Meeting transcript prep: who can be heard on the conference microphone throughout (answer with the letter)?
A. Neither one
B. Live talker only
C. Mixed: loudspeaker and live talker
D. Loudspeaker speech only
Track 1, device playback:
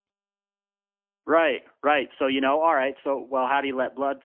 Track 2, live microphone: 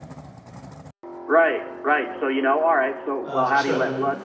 C